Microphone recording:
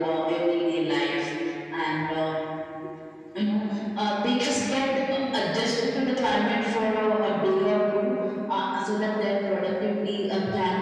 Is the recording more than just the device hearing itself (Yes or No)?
No